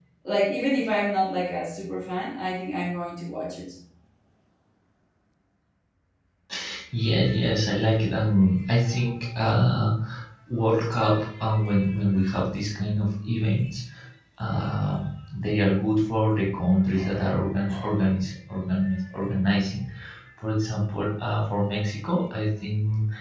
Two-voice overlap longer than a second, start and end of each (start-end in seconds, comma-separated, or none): none